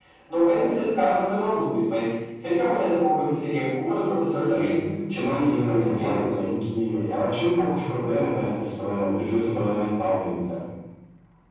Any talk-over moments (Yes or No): Yes